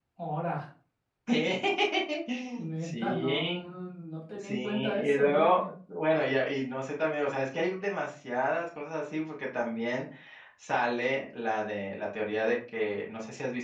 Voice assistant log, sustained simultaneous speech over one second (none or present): present